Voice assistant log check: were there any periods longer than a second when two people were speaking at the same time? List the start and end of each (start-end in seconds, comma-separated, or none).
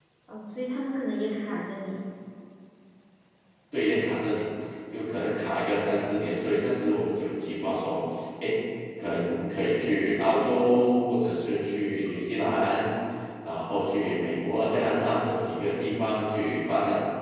none